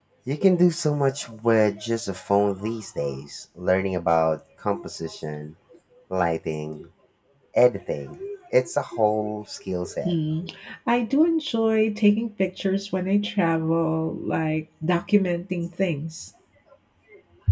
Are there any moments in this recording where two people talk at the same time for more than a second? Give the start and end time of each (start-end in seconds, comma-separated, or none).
none